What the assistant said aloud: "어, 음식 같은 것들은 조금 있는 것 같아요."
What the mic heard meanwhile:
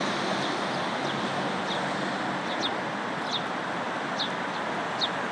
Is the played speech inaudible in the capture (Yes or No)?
Yes